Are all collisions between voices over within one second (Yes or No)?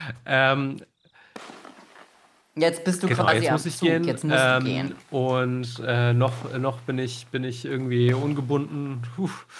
No